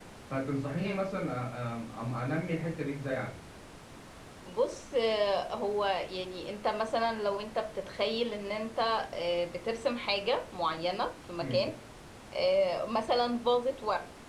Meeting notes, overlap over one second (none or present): none